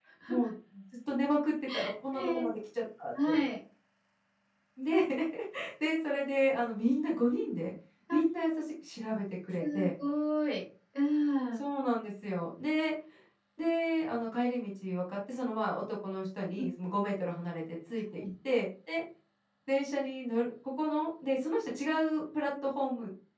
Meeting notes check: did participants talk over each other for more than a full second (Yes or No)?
No